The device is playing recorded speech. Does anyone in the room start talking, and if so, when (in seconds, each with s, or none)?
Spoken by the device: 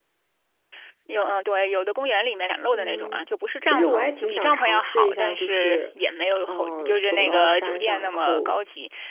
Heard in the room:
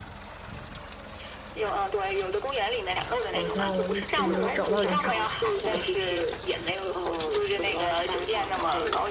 3.3 s